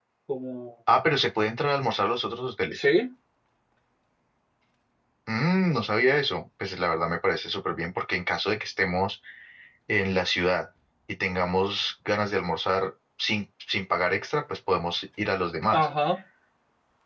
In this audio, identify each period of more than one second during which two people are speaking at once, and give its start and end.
none

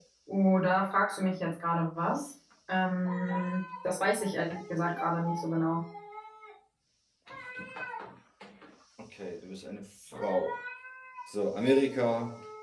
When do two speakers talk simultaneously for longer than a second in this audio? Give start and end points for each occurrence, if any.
none

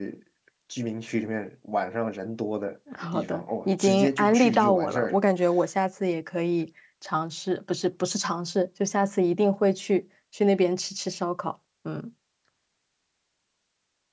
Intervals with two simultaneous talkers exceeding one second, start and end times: 3.1-5.2

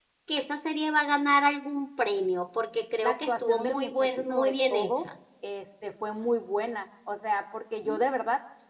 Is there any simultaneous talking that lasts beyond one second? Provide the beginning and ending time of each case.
3.0-5.1

